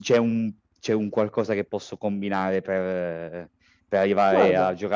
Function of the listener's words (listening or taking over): listening